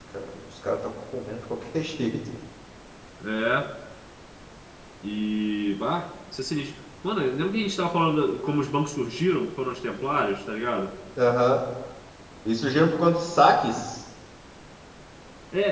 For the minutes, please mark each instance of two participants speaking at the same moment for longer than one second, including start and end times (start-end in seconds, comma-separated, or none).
none